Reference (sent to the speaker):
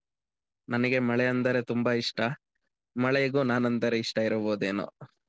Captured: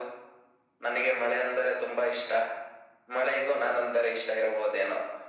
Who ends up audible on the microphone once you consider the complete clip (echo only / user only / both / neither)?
echo only